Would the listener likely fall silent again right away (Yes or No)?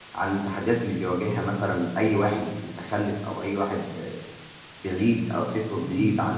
Yes